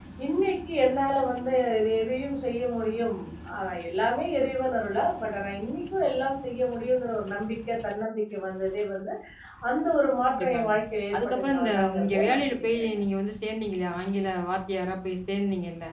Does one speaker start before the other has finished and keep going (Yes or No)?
Yes